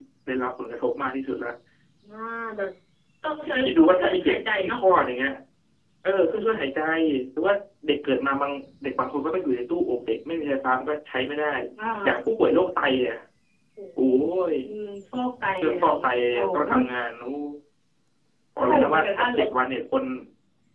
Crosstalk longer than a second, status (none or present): present